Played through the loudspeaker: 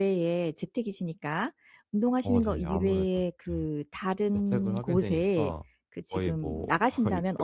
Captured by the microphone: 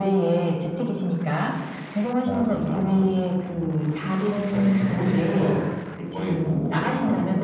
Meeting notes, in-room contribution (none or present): none